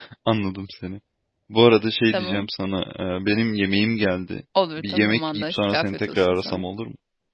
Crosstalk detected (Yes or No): Yes